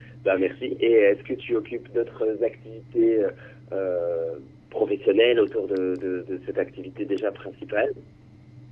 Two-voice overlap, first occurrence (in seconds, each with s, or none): none